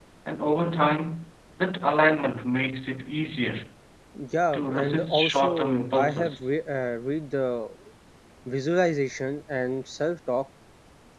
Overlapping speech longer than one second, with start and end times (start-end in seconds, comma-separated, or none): 4.5-6.5